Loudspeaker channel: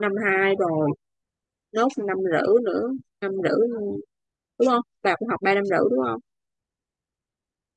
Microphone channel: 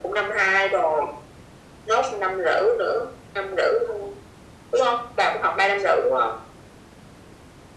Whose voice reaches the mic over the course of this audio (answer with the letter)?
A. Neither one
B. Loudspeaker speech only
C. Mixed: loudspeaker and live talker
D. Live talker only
B